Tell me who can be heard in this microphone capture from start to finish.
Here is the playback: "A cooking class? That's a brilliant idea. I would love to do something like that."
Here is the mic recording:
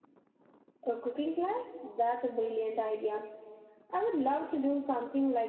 echo only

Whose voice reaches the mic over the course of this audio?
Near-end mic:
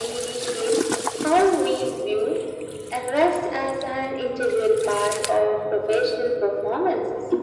echo only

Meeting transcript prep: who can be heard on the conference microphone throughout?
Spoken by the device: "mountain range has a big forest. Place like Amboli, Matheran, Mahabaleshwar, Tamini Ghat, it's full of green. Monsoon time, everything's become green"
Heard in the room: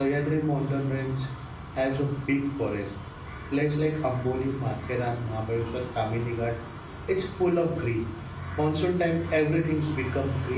echo only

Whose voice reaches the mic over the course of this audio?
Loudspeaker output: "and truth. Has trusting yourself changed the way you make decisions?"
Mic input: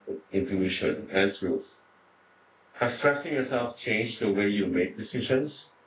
echo only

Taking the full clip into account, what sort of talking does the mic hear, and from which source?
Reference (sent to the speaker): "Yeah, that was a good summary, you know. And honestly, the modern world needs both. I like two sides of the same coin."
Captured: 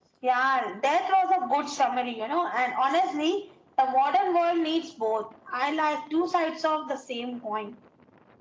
echo only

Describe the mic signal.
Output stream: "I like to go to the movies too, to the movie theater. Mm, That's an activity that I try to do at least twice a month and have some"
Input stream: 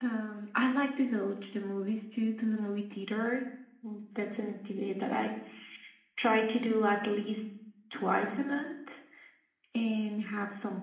echo only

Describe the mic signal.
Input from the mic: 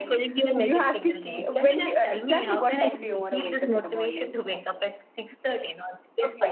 both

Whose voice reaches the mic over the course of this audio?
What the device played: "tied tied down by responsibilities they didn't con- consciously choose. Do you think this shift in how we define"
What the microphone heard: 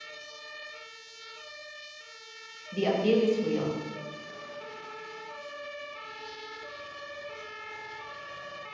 user only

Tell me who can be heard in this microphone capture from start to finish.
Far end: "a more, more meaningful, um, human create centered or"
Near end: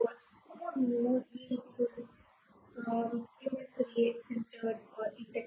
echo only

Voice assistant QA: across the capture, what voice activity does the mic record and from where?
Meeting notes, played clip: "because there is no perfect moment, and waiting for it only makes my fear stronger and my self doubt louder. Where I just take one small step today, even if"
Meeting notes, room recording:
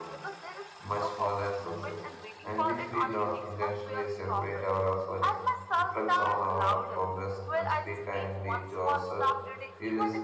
both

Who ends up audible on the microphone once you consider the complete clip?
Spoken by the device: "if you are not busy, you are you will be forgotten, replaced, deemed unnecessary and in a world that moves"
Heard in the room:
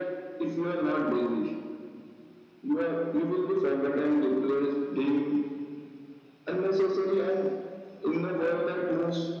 echo only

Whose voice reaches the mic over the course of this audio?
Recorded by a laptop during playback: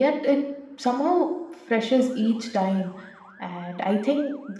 echo only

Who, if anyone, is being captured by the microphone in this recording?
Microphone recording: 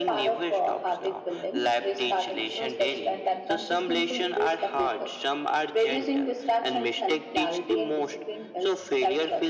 echo only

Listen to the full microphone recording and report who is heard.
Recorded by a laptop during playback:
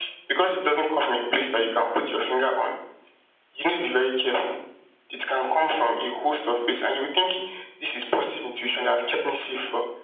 echo only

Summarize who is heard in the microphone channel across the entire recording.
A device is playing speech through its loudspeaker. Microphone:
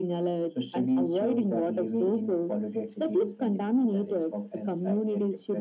echo only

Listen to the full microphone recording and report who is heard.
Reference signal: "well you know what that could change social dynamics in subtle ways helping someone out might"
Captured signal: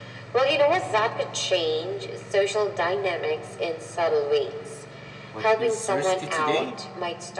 both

